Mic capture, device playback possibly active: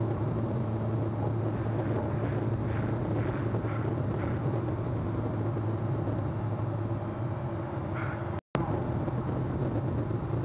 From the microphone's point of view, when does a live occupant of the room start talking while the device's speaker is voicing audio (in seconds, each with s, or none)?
none